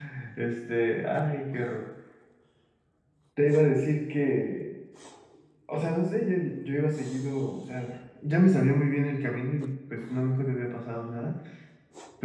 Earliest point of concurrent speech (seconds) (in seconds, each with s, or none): none